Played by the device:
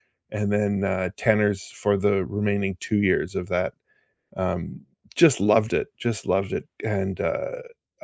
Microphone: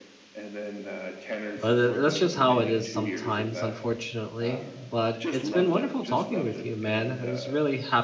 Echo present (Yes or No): Yes